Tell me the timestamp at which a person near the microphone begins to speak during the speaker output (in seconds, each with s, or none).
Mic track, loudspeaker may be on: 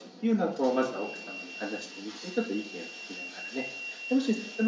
none